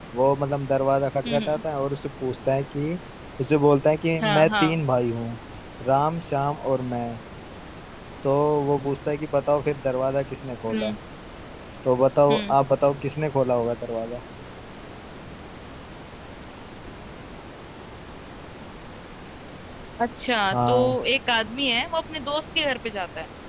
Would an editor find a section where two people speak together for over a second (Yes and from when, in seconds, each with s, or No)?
No